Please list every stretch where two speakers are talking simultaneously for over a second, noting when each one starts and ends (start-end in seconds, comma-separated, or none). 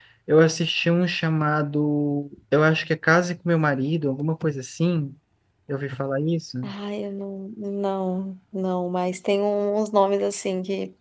none